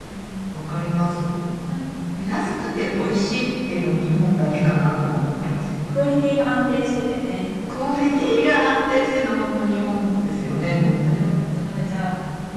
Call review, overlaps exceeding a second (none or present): none